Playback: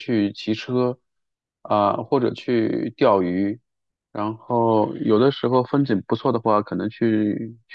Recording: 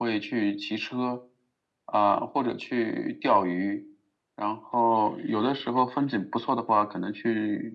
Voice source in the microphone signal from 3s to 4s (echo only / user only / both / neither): echo only